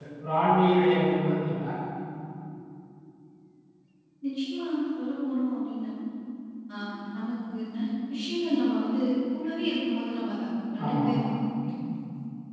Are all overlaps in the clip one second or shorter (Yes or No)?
Yes